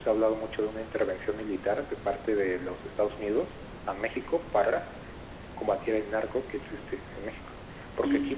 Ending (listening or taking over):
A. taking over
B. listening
B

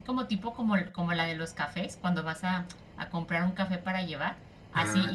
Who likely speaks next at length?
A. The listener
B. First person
B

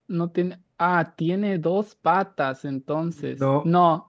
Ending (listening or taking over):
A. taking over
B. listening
B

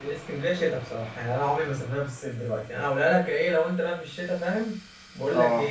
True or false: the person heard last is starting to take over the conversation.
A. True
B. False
B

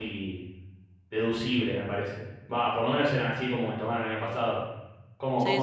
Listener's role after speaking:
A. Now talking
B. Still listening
A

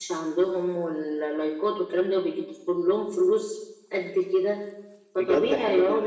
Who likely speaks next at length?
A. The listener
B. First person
A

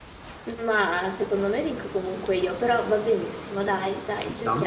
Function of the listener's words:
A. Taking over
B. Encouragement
A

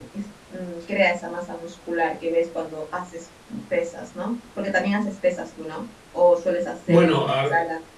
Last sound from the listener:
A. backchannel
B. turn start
B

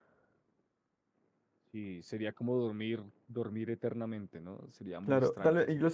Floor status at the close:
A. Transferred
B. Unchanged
A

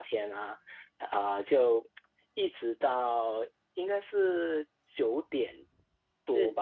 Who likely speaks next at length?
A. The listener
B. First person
B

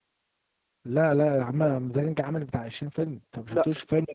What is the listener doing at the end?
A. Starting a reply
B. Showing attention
B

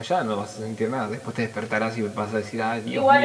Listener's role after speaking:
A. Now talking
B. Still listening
A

